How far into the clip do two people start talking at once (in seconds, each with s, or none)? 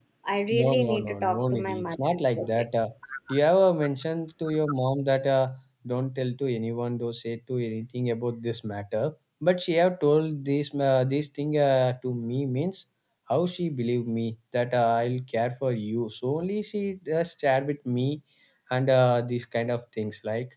0.6 s